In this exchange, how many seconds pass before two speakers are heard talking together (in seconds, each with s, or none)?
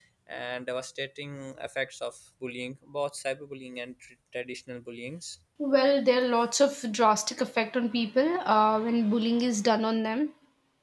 none